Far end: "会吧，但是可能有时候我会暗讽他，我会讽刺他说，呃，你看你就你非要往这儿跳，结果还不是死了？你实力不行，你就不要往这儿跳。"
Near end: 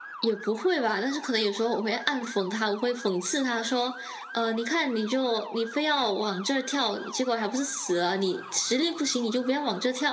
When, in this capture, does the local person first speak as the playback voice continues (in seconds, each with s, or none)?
none